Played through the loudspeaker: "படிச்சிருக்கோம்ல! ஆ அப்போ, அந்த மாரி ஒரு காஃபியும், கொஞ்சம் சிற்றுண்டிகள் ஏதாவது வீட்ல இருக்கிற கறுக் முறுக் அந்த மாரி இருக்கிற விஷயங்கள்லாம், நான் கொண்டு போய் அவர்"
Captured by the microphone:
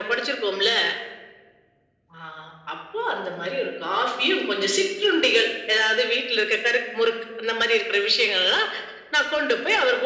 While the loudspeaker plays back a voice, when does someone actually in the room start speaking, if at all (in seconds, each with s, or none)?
none